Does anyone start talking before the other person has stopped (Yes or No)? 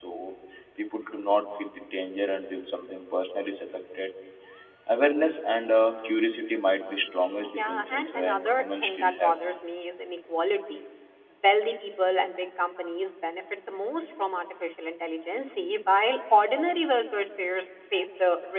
Yes